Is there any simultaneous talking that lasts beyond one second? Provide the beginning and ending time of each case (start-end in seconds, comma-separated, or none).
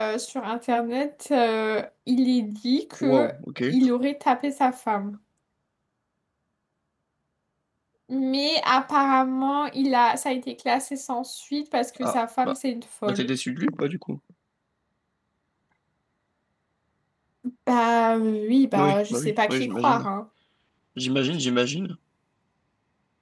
18.7-20.1